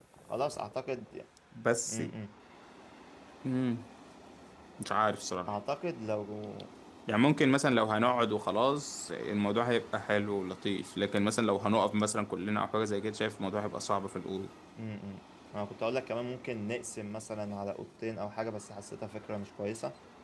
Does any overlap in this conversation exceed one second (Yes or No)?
No